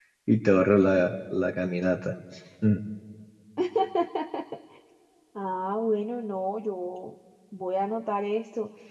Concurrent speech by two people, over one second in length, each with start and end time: none

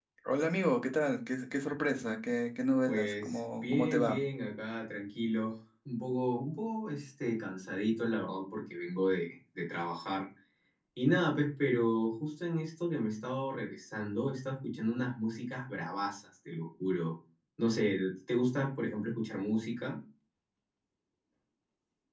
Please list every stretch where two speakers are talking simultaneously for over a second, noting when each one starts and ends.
2.9-4.2

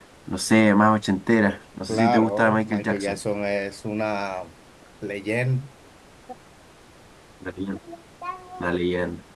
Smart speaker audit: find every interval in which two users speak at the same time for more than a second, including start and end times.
1.9-3.2

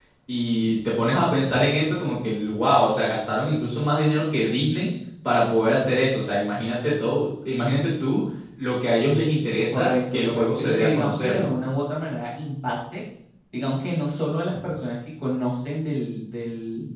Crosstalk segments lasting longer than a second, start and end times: 9.7-11.6

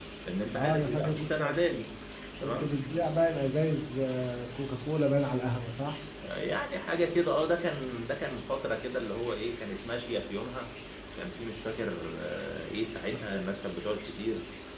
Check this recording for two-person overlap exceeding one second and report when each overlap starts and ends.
0.6-1.8

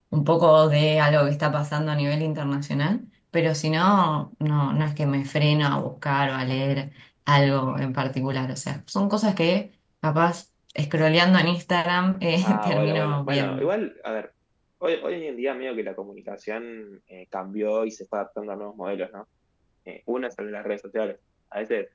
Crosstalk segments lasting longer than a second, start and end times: 12.4-13.7

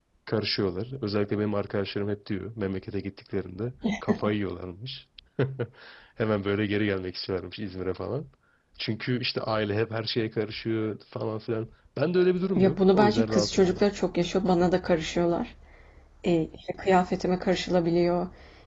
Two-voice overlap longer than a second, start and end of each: 12.6-13.8

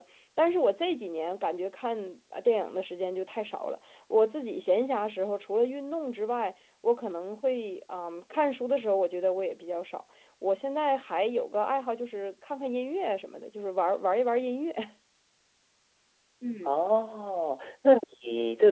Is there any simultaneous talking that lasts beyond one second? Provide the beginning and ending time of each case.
none

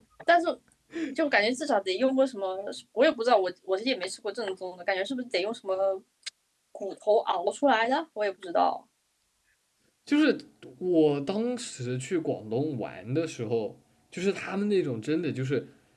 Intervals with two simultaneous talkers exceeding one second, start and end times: none

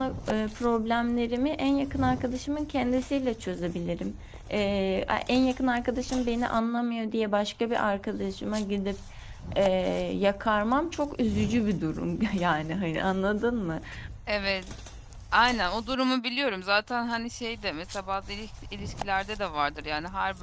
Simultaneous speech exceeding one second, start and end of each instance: none

